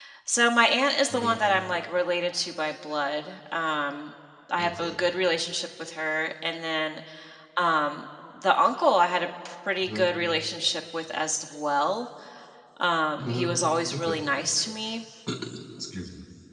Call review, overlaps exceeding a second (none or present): none